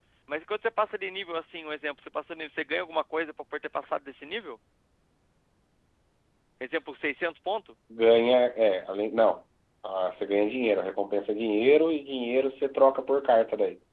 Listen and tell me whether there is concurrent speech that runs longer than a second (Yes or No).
No